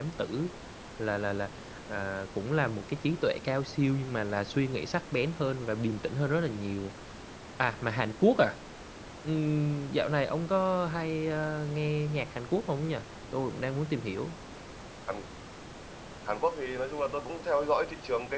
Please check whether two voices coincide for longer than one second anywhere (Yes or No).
No